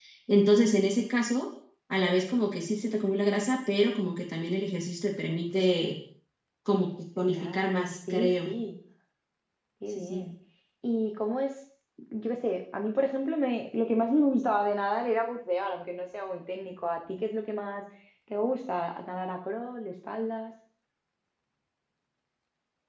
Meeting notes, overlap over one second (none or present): present